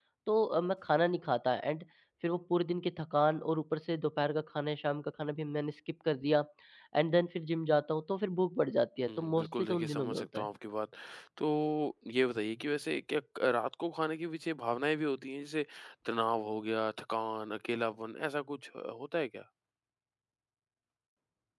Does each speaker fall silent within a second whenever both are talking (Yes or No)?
No